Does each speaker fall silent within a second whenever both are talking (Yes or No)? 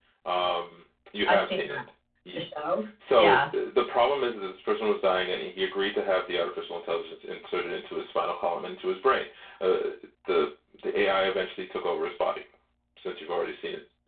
Yes